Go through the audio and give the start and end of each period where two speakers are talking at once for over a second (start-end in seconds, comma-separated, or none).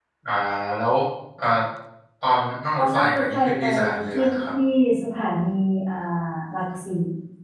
2.8-4.5